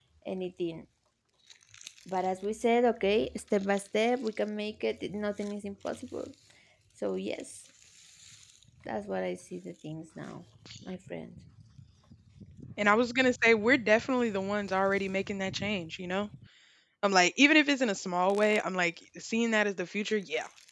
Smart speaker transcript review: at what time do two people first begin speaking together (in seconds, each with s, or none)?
none